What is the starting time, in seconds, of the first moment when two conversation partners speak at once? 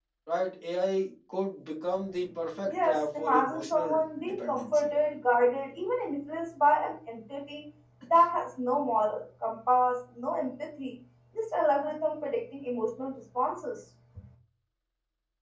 2.6 s

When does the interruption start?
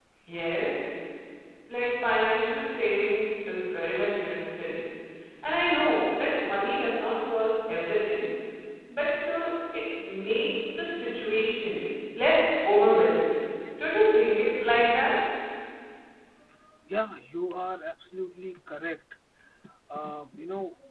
none

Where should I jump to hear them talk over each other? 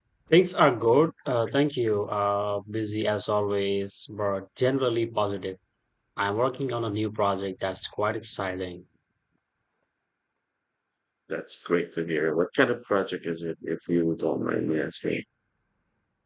none

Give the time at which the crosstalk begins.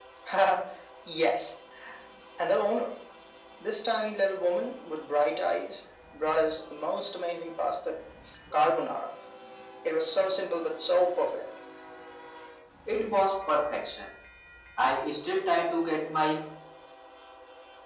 none

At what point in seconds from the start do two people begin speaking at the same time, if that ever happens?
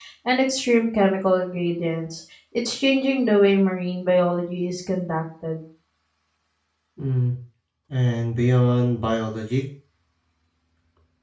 none

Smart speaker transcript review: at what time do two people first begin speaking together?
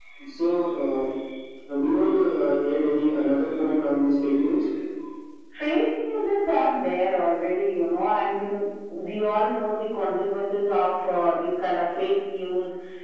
none

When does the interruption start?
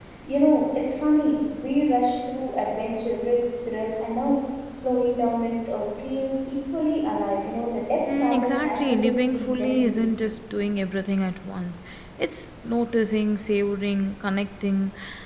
8.1 s

